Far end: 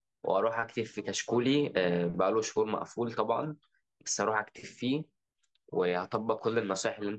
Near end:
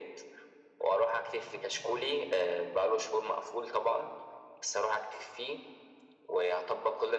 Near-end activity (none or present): none